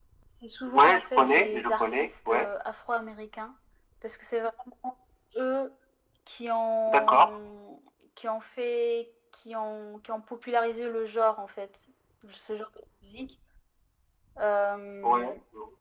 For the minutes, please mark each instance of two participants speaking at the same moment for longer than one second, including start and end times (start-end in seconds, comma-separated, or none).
0.7-2.5